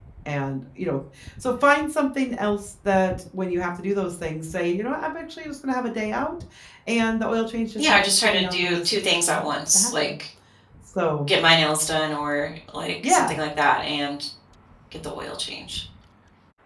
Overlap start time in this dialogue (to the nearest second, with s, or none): 8 s